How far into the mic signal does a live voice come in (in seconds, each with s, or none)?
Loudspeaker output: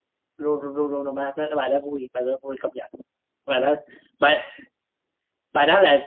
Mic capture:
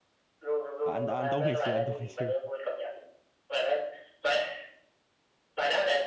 0.8 s